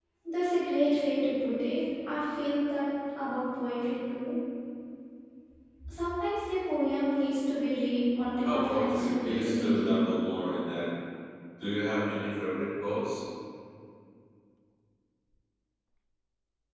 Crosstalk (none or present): present